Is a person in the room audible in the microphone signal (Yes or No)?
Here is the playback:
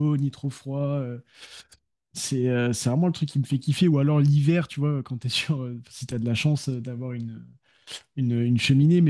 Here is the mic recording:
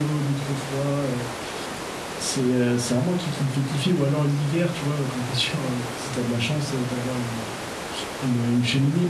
No